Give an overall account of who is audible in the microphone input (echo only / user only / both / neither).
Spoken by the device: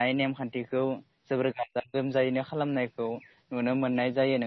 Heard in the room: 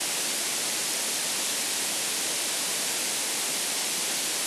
neither